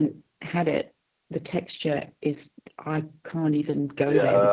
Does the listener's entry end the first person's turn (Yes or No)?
Yes